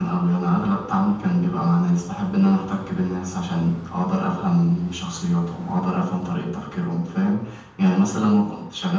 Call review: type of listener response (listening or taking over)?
listening